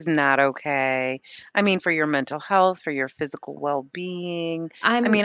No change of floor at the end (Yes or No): Yes